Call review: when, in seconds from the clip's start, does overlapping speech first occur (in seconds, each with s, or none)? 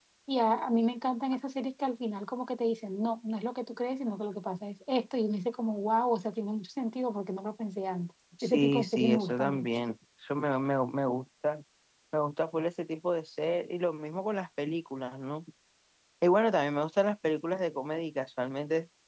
8.4 s